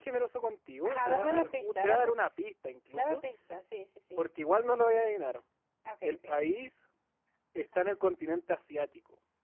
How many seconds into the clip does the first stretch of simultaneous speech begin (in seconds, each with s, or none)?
0.8 s